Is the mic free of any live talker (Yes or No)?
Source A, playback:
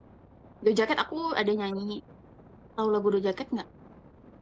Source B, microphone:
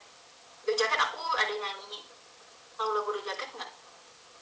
Yes